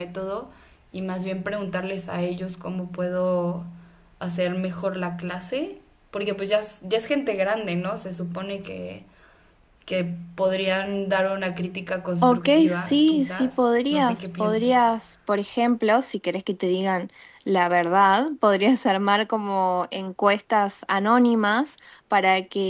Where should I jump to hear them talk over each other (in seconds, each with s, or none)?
12.2 s